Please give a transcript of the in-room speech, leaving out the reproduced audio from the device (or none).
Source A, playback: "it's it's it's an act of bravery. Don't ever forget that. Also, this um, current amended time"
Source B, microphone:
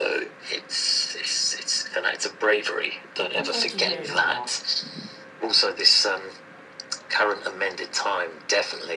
looking forward to hearing more.